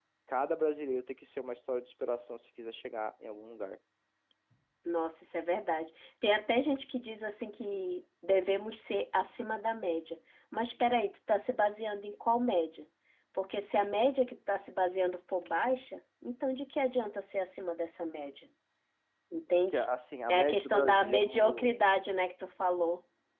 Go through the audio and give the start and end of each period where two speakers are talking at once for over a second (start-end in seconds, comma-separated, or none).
20.3-21.7